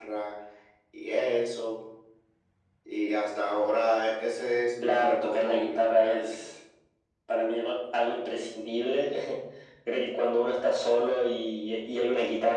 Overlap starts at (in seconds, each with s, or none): 4.8 s